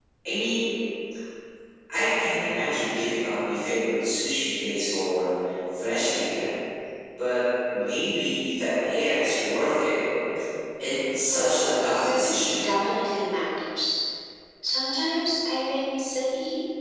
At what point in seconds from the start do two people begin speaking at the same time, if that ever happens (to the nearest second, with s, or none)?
11 s